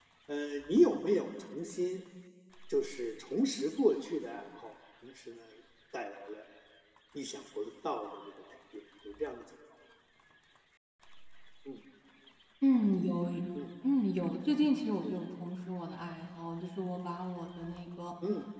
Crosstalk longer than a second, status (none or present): none